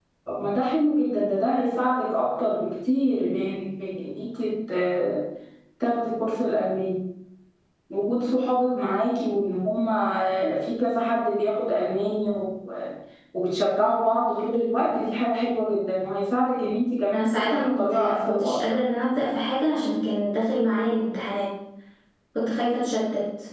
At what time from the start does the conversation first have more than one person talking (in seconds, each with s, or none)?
17.1 s